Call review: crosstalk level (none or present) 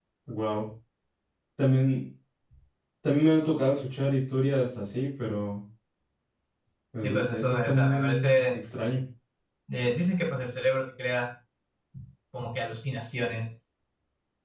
present